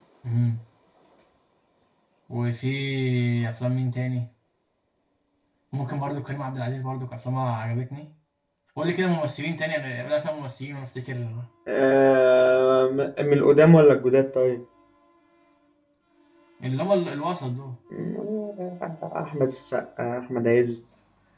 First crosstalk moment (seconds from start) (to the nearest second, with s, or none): none